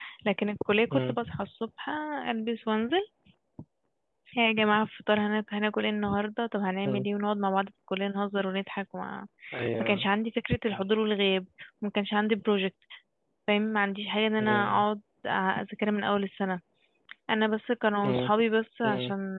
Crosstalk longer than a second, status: none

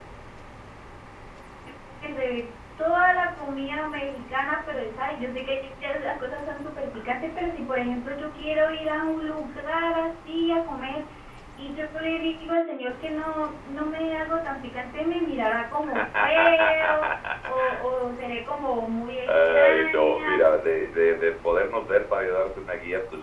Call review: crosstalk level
present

